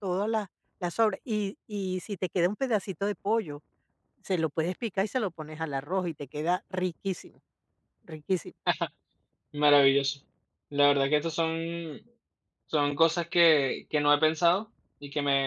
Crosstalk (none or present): none